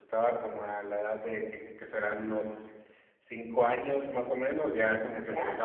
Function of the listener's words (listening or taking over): listening